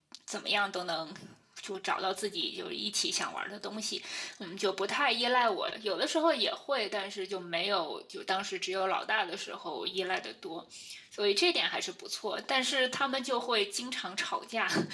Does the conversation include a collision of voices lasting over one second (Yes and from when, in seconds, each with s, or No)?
No